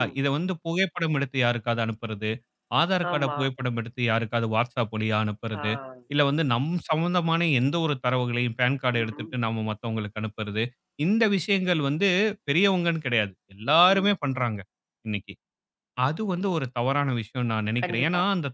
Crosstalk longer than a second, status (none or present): none